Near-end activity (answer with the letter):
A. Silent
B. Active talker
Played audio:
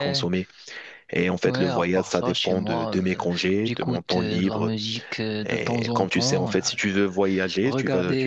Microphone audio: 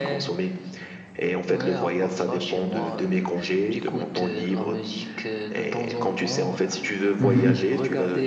B